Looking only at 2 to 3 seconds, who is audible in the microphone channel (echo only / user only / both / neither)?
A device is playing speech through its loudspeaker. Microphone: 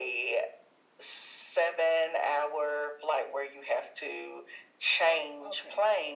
echo only